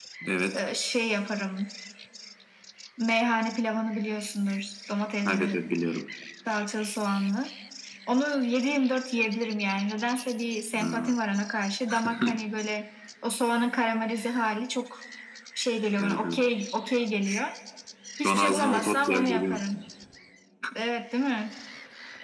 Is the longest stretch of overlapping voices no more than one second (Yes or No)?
No